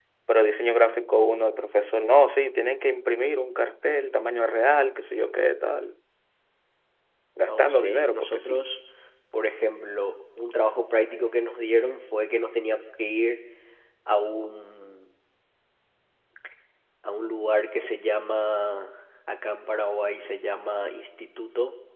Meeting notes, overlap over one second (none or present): present